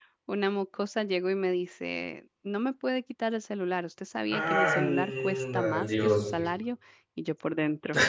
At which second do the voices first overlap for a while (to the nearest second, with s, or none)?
4 s